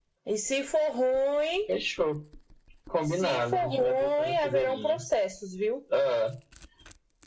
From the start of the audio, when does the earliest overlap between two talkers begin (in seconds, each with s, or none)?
3.1 s